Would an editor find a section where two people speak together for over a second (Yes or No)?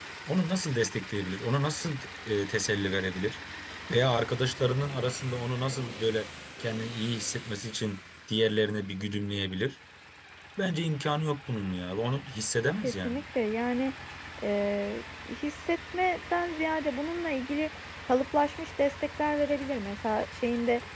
No